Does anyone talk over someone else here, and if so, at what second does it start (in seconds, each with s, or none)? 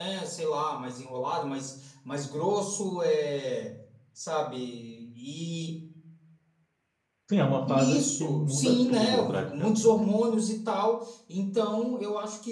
7.7 s